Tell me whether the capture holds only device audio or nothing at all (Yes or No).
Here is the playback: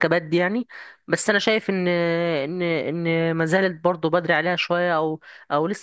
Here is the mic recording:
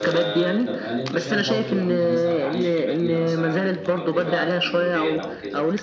No